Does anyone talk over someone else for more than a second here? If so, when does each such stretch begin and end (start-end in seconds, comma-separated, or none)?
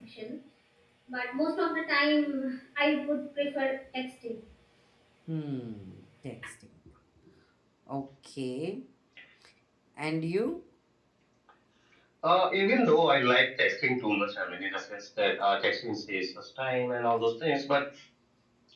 none